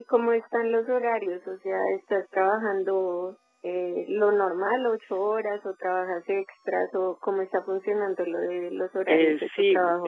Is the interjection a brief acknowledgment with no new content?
No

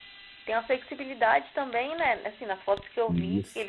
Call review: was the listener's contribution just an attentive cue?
Yes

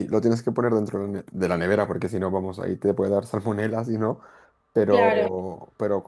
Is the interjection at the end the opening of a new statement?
No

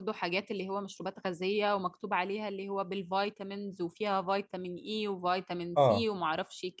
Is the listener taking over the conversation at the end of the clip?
No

